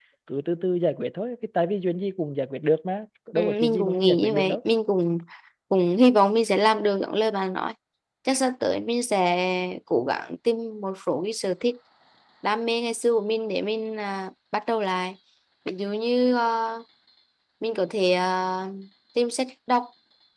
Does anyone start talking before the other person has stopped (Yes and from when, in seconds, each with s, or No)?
Yes, from 3.4 s